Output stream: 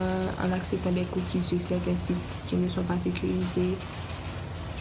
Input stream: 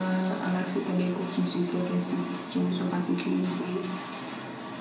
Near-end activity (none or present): none